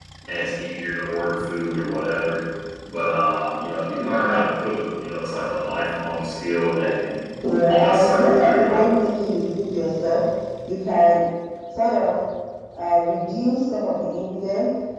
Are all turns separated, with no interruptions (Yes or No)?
No